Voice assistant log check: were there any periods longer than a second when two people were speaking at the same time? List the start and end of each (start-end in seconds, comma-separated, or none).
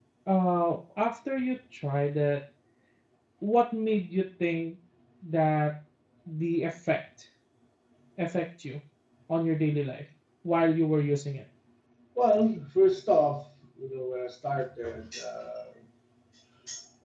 none